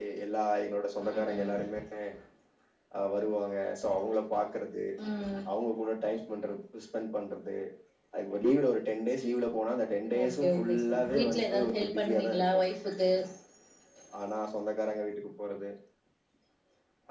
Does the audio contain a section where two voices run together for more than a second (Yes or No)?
Yes